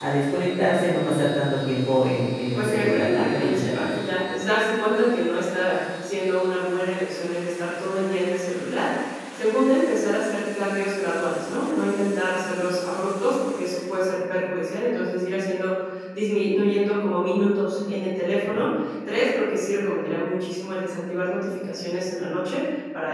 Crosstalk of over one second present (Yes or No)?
Yes